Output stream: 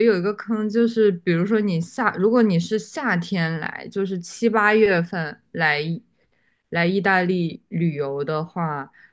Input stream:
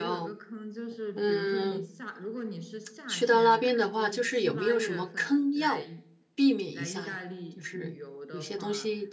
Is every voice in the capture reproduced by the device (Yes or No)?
No